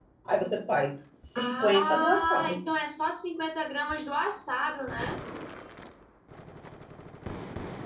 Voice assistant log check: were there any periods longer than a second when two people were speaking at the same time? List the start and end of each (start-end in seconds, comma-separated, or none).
1.4-2.6